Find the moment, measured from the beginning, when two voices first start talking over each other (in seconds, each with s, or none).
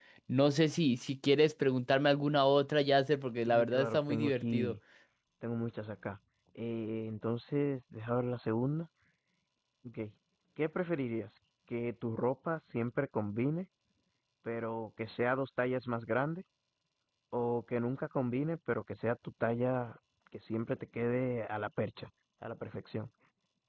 3.5 s